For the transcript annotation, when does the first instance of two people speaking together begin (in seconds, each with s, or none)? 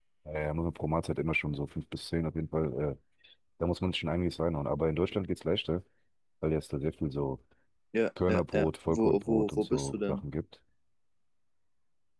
8.3 s